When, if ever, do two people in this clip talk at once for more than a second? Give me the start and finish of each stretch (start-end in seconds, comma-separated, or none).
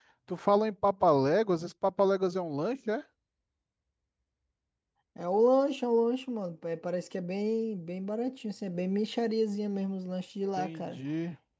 none